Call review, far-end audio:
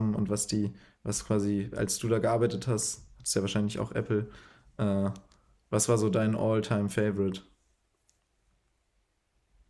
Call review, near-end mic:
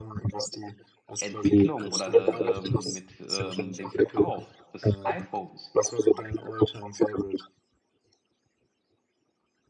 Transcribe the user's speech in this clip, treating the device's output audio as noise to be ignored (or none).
Entwicklung oder ähm, mit ähm, dem Verkauf des iPhones